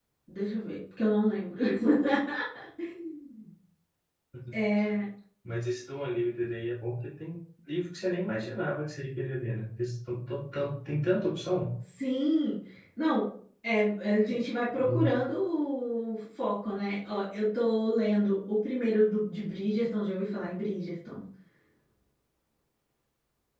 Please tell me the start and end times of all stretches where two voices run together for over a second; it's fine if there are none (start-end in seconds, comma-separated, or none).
none